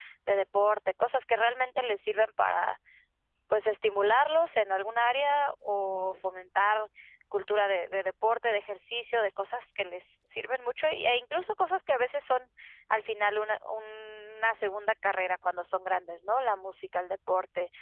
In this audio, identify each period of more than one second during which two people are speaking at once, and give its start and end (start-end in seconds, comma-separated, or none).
none